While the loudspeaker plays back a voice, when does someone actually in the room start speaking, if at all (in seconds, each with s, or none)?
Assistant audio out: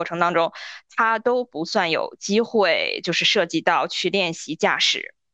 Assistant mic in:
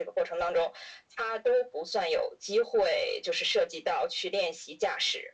none